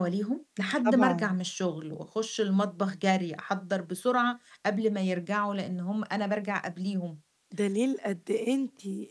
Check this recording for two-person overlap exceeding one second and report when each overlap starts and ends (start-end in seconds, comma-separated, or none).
none